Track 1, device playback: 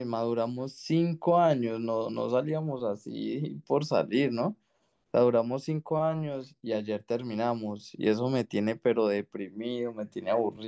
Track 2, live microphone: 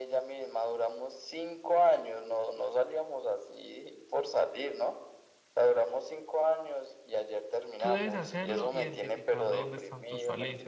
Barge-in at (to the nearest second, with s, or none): 8 s